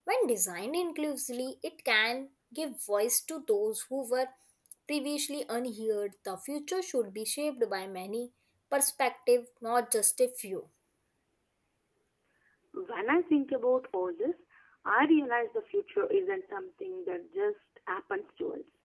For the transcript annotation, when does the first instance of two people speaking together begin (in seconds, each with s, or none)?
none